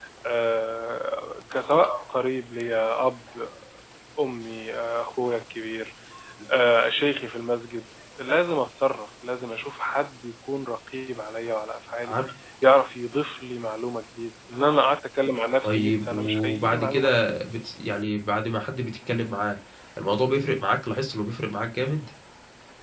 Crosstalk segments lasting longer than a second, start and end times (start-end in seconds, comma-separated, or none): 15.6-17.4